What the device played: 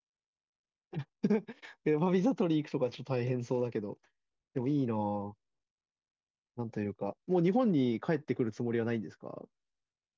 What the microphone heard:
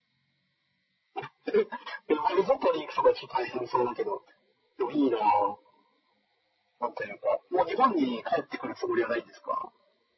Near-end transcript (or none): none